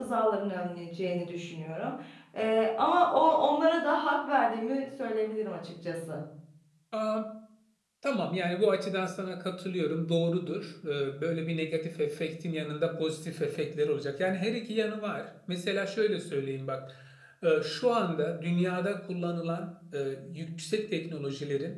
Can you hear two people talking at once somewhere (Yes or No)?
No